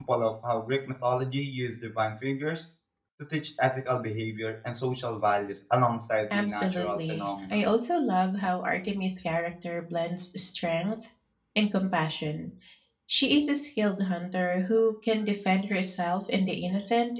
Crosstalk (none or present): present